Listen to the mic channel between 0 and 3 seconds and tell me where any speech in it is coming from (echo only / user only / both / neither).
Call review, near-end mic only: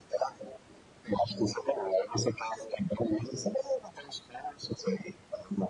echo only